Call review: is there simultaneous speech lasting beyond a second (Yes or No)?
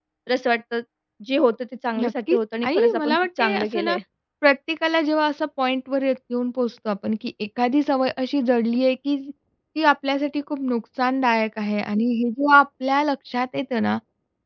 Yes